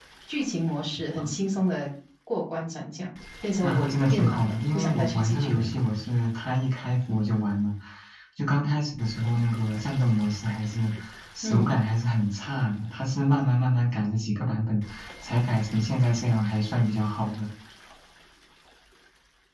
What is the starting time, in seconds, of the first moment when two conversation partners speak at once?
3.6 s

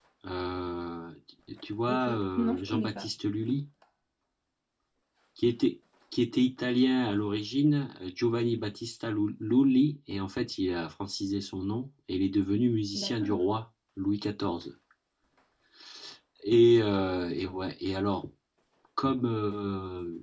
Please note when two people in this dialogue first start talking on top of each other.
1.9 s

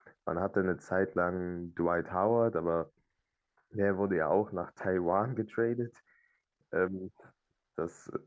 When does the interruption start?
none

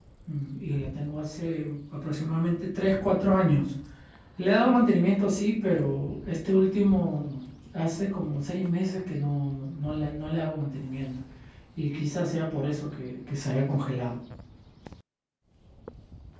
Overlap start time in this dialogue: none

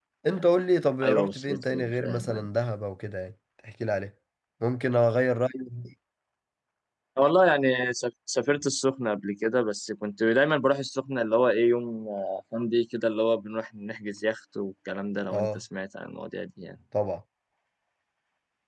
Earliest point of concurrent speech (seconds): 1.0 s

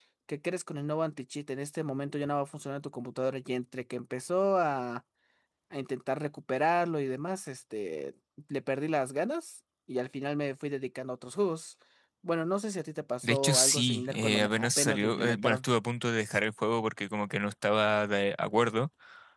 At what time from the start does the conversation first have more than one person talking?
13.2 s

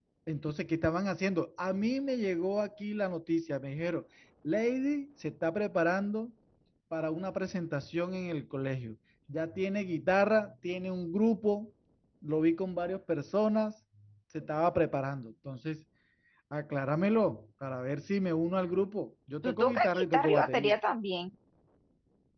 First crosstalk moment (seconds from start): 19.4 s

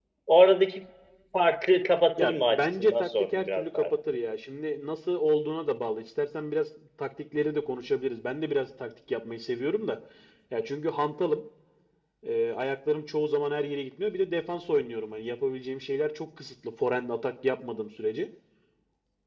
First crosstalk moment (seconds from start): 2.2 s

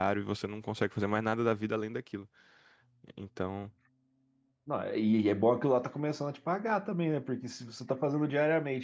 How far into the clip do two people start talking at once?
none

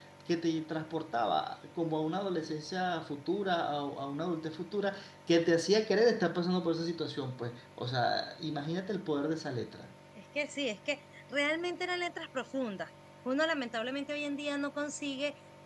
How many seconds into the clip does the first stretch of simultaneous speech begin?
none

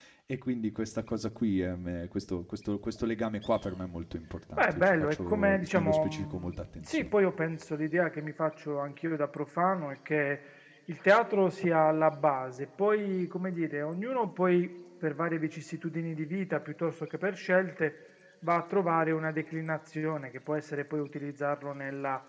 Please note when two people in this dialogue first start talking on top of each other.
4.6 s

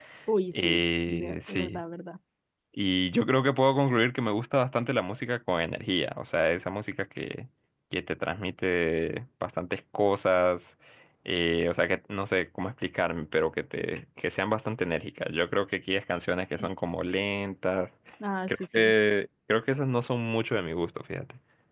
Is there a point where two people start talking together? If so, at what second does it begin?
0.5 s

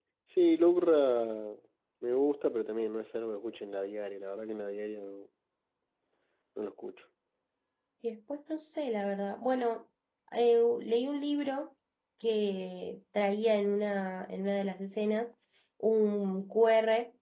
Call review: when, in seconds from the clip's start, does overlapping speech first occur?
none

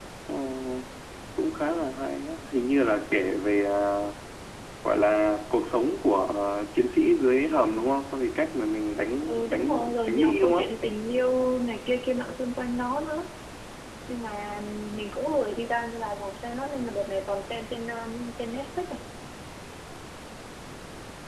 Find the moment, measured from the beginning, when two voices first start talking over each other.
9.3 s

